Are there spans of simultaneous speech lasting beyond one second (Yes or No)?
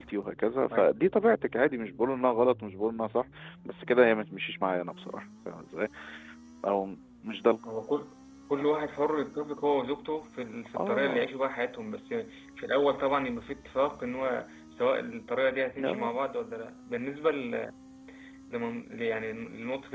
No